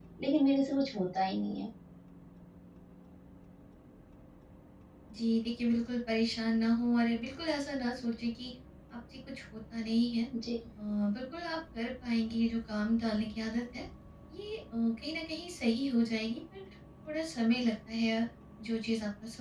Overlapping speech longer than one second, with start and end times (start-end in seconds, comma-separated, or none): none